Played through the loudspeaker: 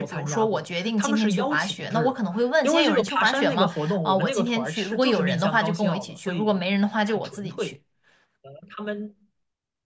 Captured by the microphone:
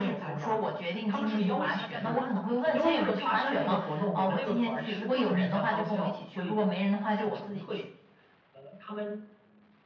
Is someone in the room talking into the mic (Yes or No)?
Yes